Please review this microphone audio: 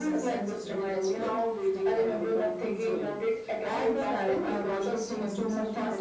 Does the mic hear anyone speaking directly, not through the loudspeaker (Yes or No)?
Yes